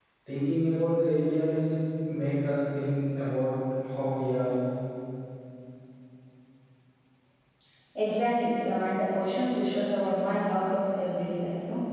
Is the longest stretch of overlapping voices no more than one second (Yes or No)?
Yes